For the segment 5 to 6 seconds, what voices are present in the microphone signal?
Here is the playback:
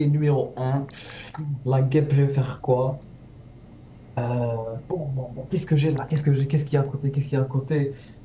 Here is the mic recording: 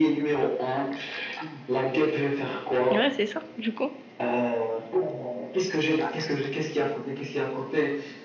echo only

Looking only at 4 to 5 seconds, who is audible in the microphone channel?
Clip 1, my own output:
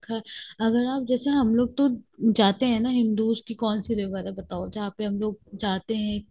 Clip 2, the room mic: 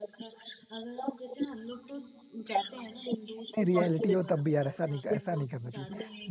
both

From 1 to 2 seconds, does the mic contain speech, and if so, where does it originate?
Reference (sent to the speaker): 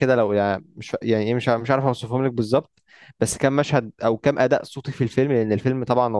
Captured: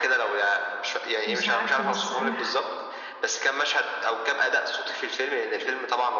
both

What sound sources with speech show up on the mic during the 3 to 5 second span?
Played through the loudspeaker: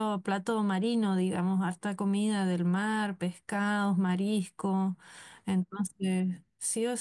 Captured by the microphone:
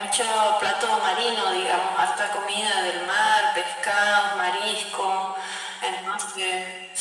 echo only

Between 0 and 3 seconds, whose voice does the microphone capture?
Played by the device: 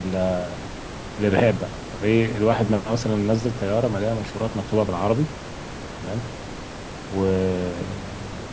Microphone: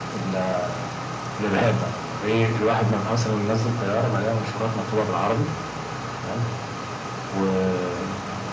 echo only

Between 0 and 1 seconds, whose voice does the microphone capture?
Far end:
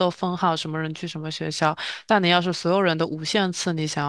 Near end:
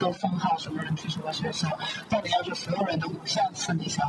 echo only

